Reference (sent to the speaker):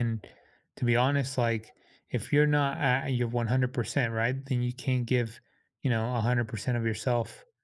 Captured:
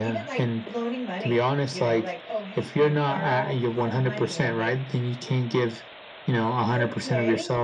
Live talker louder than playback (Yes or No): No